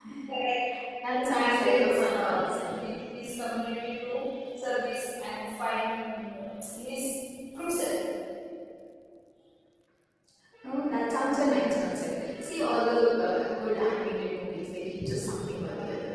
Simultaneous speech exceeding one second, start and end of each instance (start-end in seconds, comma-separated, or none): 1.1-2.8